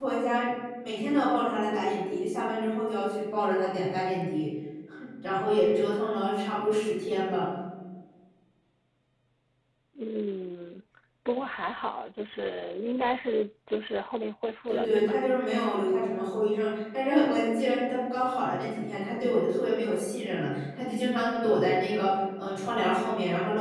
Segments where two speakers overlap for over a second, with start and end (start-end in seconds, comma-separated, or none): none